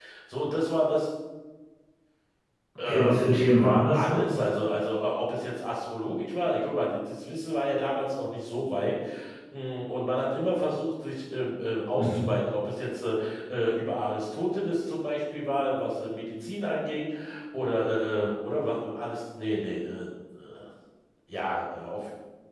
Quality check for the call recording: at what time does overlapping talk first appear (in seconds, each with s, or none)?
2.8 s